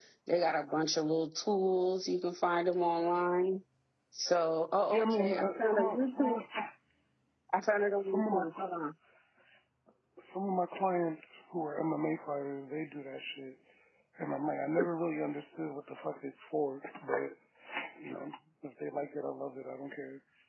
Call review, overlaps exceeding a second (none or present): present